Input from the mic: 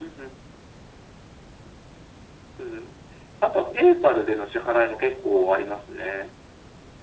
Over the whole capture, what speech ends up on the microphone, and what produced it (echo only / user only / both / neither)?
echo only